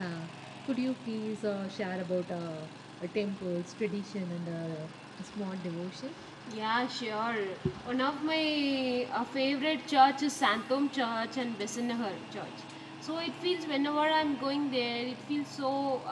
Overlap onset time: none

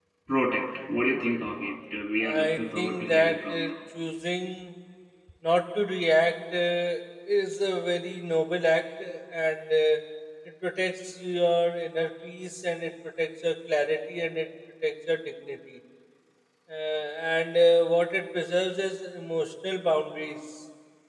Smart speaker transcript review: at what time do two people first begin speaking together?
2.2 s

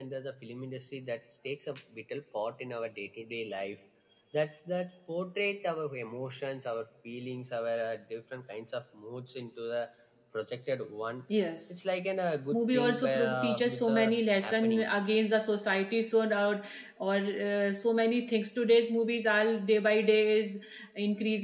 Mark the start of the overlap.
12.5 s

